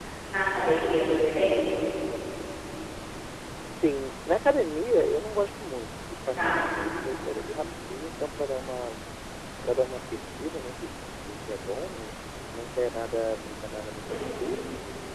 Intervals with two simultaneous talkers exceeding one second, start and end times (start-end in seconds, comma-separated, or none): none